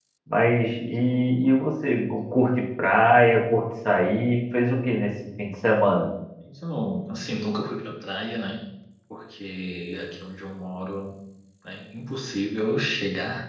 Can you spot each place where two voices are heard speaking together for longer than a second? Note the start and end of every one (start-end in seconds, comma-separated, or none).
none